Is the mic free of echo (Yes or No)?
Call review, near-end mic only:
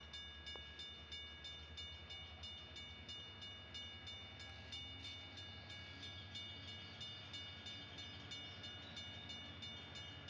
Yes